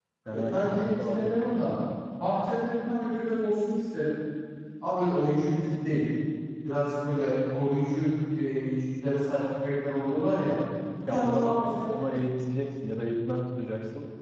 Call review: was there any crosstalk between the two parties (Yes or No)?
Yes